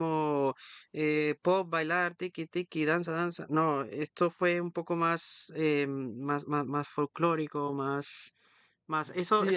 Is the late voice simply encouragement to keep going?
No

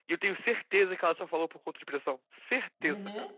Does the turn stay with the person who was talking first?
No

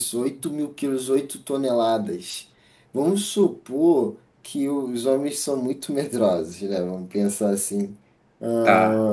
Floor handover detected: No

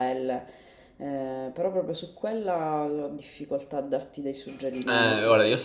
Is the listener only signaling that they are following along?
No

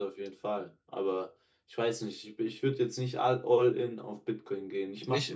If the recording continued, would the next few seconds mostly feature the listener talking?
No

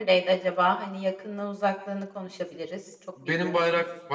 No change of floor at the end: No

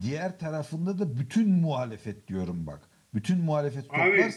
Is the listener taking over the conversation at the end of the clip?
No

